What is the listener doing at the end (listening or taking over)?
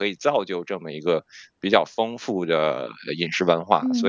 taking over